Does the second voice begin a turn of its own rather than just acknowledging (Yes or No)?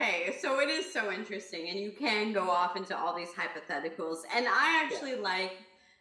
No